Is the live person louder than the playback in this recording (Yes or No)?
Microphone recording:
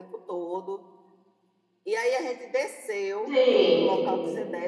Yes